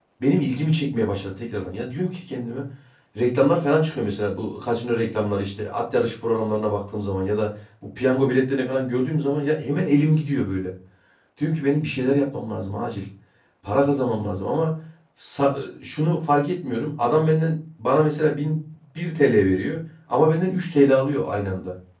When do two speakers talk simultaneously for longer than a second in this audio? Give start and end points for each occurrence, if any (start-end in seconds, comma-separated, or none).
none